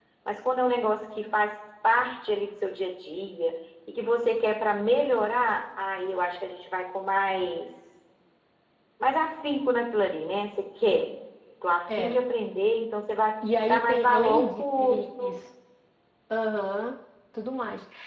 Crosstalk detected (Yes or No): Yes